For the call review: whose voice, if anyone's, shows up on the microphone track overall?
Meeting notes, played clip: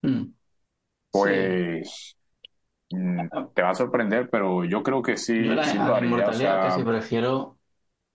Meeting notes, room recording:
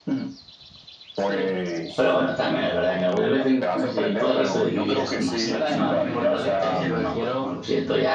both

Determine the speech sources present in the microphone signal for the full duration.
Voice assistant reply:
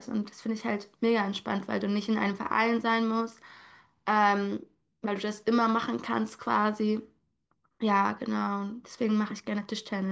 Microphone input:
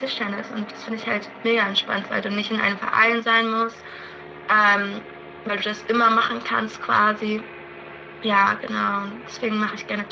echo only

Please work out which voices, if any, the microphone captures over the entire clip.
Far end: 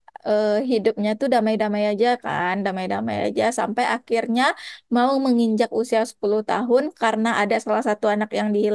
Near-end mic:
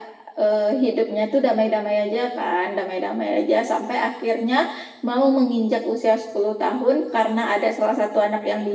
echo only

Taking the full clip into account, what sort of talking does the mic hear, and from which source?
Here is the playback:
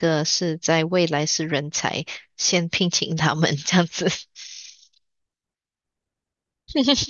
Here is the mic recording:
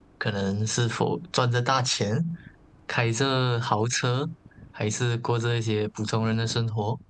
user only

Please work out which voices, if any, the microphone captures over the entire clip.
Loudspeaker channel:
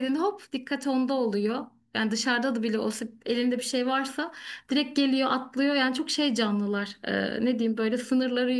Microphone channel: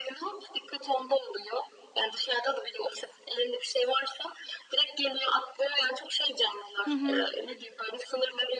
both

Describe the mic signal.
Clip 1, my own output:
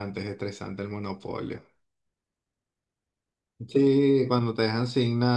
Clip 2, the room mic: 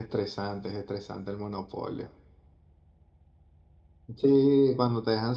echo only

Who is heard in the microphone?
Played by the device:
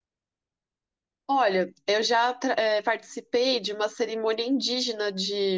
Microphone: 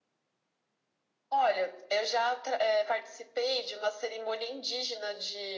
echo only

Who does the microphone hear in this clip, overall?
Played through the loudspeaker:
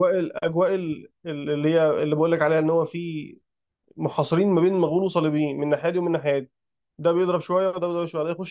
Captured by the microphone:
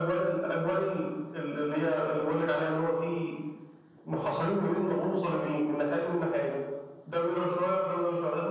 echo only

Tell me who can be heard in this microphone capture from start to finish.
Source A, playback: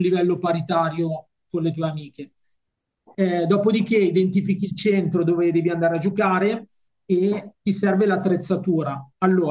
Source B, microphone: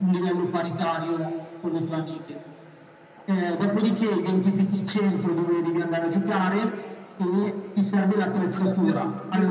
both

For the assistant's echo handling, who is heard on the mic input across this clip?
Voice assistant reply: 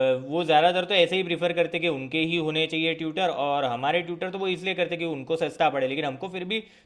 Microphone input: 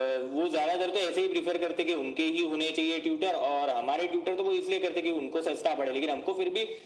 echo only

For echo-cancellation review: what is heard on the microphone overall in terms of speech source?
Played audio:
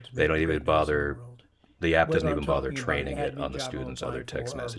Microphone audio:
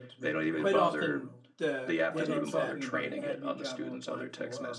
both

